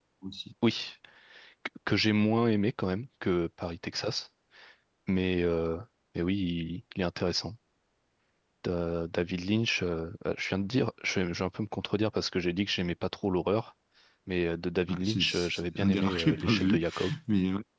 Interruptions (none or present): present